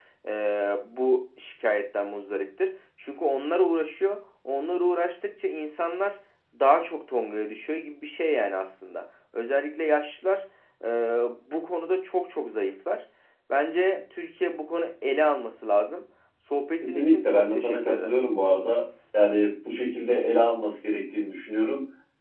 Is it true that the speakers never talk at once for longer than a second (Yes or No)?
No